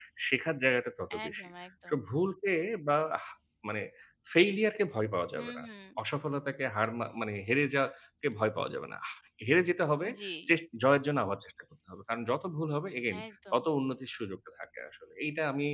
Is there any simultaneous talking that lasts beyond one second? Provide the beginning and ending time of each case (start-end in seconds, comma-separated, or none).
none